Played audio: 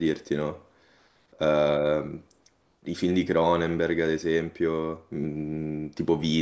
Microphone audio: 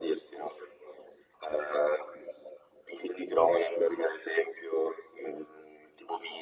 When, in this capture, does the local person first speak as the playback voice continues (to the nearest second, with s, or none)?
none